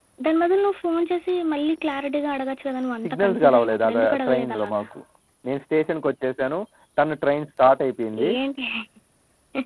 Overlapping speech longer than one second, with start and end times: 3.0-4.8

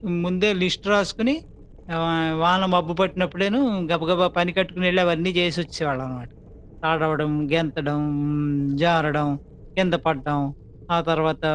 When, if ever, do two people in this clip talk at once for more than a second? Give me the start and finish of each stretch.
none

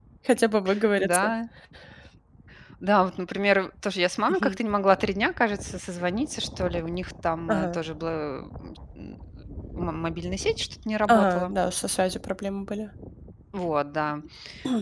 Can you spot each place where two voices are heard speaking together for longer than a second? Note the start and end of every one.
none

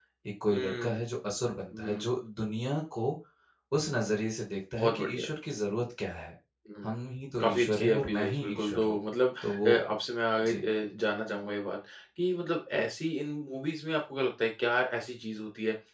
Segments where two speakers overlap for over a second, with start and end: 7.4-9.0

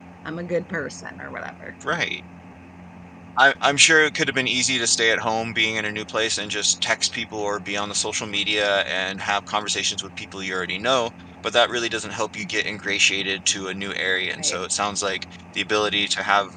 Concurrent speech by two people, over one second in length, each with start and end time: none

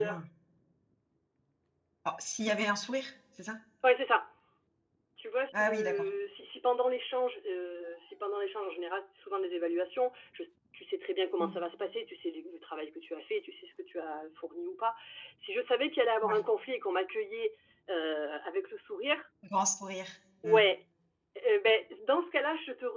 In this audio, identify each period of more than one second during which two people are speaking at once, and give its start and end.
none

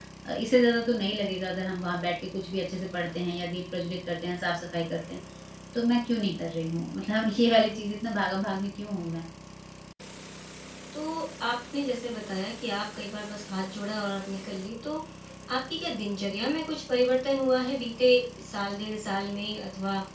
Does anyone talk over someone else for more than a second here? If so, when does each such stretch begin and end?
none

